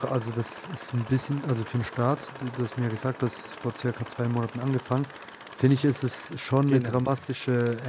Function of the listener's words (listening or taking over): listening